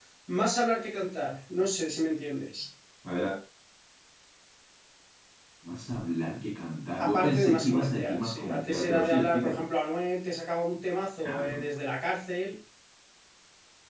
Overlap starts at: 7 s

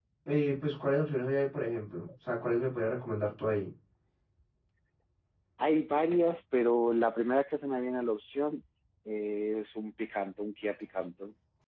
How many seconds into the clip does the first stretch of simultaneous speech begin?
none

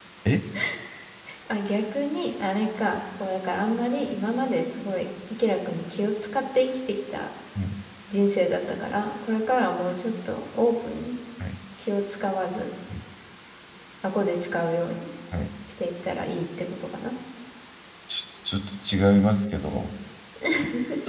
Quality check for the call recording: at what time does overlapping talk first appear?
none

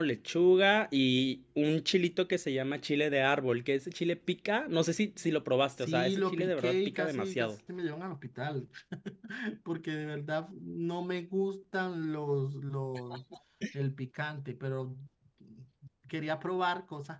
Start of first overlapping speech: 6 s

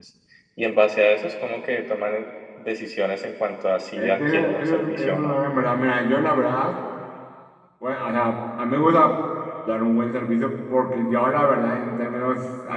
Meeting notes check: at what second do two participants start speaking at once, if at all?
4 s

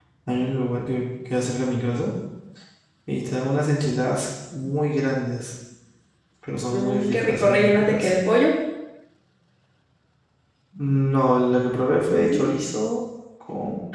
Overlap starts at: 7 s

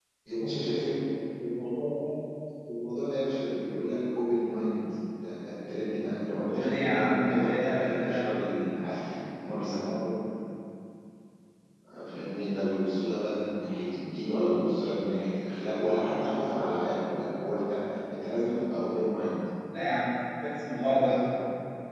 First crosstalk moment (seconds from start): 6 s

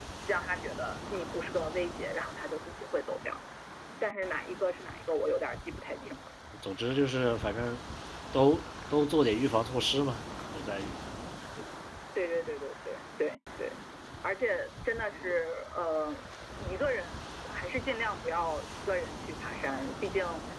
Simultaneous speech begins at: none

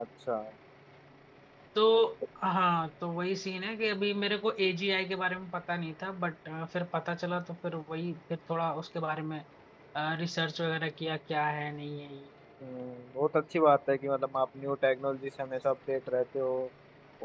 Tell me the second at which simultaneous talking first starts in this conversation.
none

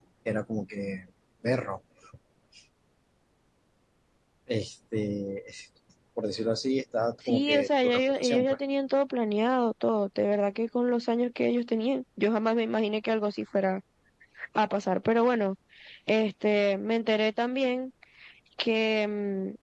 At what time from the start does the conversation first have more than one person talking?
7 s

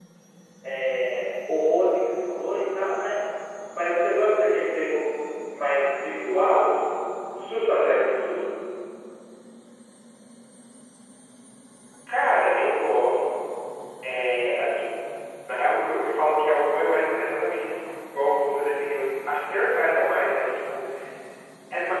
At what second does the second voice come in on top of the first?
none

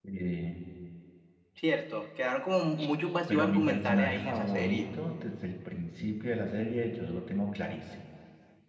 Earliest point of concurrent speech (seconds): 3 s

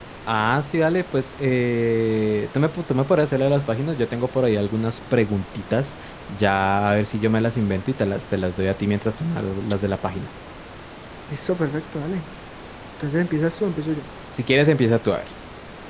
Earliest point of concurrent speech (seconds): none

